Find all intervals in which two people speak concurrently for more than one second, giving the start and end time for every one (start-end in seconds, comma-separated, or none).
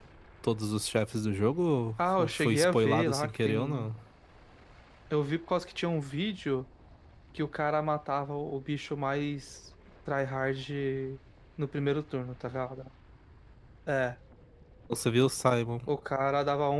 2.0-3.9